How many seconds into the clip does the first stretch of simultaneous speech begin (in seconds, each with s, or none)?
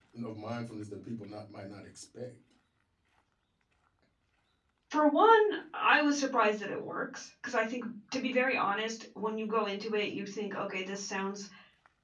none